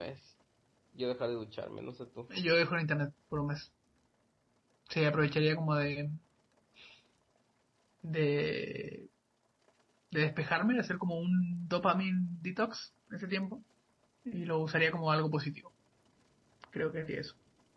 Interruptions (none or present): none